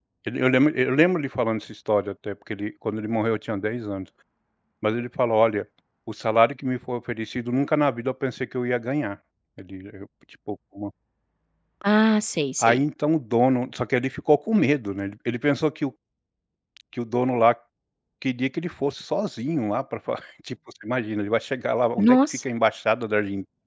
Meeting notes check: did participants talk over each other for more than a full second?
No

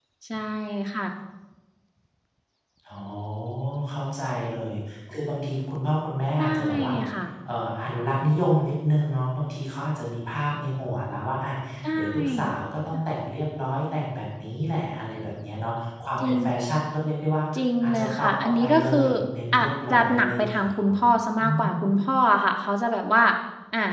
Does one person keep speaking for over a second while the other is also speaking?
Yes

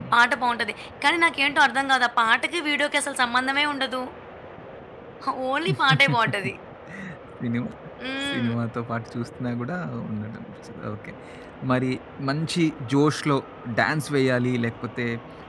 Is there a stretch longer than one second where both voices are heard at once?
No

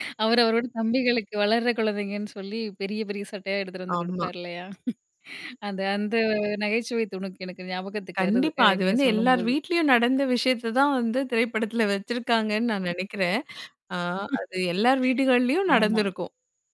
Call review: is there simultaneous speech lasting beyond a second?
Yes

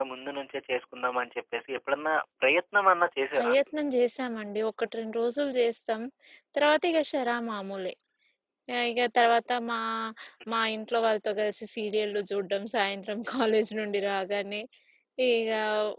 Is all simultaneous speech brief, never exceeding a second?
Yes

